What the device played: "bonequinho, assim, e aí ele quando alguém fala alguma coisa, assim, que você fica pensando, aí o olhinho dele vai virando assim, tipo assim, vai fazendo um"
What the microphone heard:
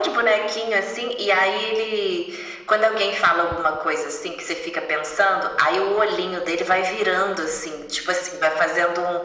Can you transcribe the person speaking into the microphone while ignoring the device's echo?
none

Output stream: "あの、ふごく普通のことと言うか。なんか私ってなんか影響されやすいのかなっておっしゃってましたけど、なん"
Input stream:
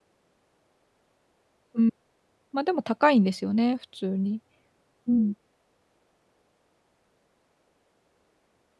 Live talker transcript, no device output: うん。ま、でも高いんですよね、普通に。うん。

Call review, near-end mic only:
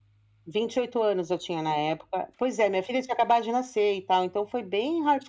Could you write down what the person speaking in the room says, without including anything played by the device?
none

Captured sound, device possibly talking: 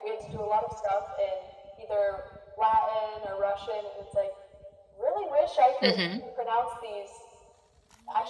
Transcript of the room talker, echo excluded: Mhm.

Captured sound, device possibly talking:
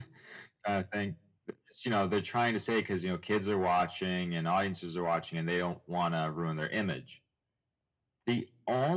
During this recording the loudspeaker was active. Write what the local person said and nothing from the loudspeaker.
none

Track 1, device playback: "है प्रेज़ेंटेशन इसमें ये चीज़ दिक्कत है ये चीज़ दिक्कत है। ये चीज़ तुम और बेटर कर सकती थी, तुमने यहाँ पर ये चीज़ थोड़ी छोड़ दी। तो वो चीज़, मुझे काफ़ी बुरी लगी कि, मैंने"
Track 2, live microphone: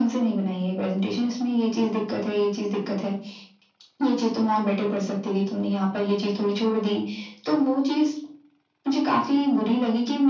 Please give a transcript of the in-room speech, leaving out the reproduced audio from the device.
none

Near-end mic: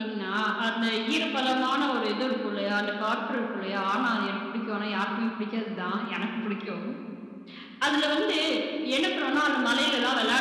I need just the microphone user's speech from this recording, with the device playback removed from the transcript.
none

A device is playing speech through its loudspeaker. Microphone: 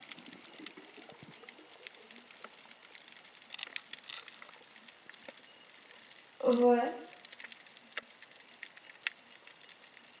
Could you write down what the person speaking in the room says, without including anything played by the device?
Heu, ouais.

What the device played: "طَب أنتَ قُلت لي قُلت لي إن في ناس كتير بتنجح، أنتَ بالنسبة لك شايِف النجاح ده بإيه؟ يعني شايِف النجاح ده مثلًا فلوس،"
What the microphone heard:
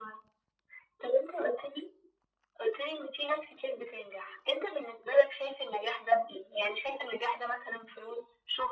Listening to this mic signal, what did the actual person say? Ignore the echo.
none

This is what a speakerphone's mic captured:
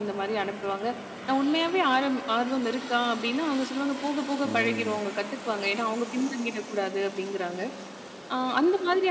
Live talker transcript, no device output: ம்.

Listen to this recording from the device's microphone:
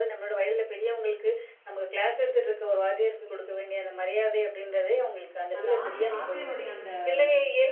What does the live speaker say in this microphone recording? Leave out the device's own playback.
அந்த ஆச்சி ஆசிரியர் அந்தச்

